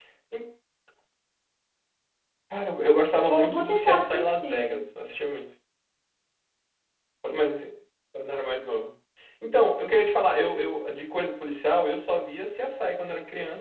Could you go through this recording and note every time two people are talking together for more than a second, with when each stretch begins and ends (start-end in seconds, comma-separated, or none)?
3.3-4.8